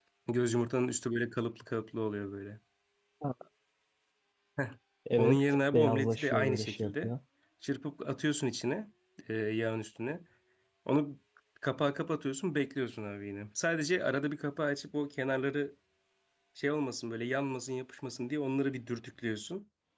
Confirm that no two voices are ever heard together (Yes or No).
No